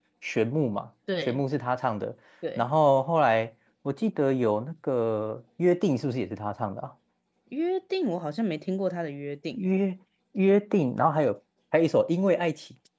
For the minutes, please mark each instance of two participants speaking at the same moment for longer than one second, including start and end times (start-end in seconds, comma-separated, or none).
none